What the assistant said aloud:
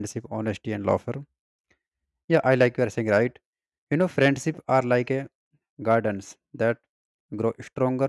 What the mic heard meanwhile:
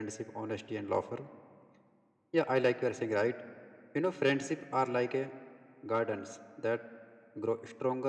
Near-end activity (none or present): none